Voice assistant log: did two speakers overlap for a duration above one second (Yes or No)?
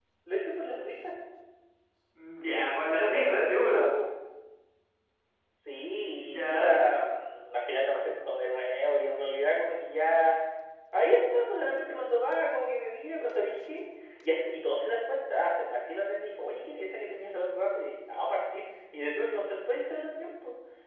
Yes